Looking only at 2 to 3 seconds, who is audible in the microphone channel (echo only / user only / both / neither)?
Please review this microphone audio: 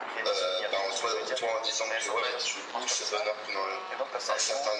echo only